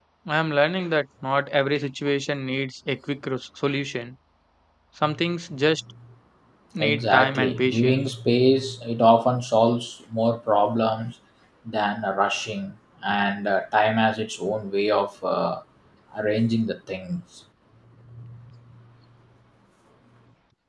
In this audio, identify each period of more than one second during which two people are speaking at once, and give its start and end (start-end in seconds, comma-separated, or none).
6.8-8.1